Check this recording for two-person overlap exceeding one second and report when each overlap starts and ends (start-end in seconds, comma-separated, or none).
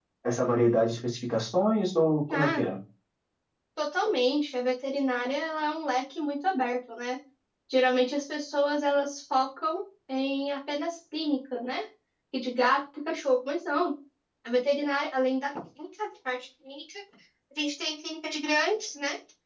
none